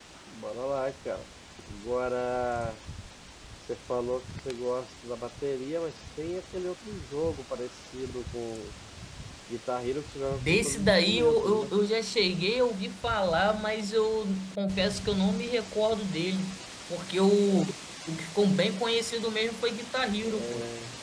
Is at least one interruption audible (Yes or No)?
Yes